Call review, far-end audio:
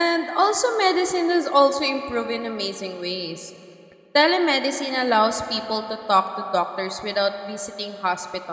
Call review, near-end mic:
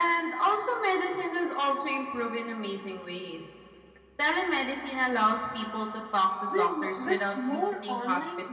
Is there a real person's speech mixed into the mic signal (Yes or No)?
Yes